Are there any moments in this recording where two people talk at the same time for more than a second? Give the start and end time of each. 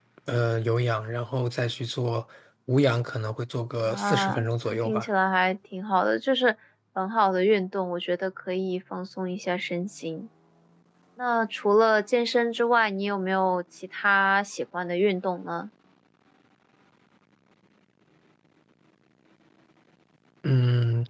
3.8-5.0

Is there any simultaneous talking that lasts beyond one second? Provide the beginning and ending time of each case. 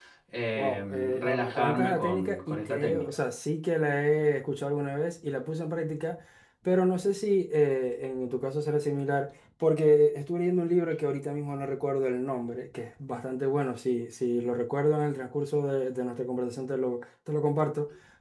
0.6-3.1

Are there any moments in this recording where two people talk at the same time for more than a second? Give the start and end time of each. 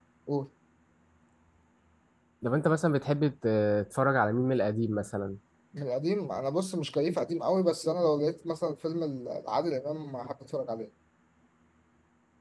none

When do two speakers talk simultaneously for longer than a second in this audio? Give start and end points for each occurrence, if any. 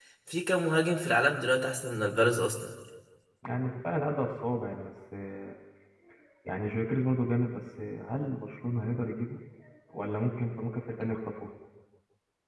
none

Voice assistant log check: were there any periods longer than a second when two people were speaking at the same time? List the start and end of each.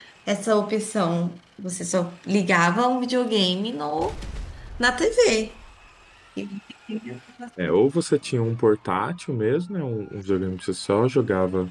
none

